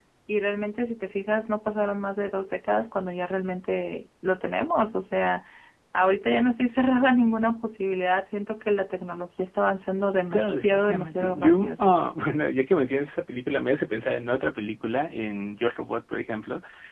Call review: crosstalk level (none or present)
present